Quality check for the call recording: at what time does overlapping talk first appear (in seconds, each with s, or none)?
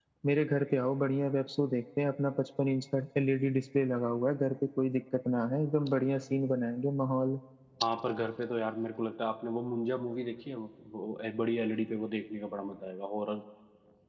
none